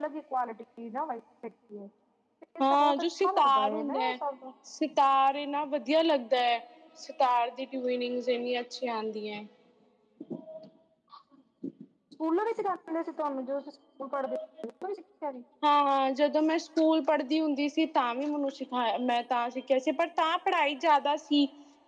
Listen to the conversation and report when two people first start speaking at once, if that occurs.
3 s

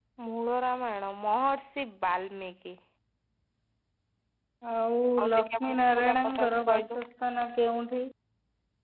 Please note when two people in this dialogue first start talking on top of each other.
5 s

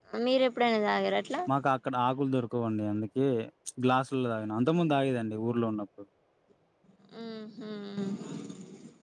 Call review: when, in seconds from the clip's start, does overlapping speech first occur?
none

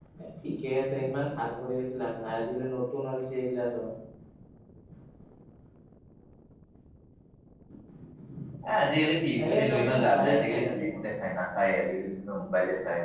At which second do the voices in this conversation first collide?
9 s

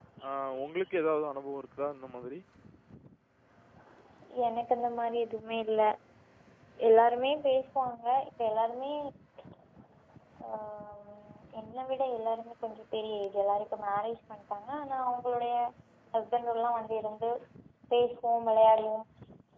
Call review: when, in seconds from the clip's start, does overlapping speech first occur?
none

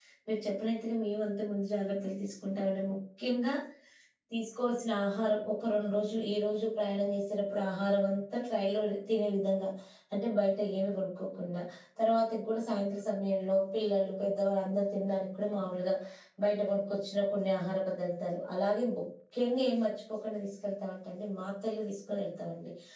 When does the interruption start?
none

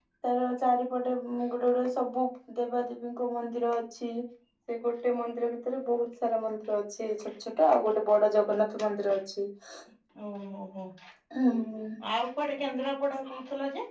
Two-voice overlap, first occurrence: none

